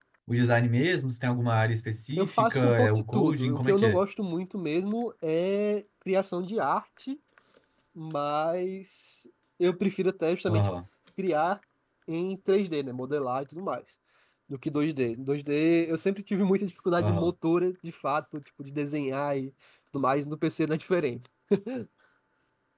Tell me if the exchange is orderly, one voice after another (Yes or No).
No